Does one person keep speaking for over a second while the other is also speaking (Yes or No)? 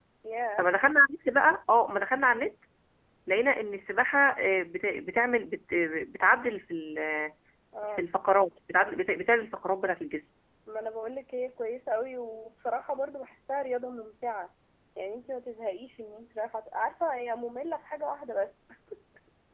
No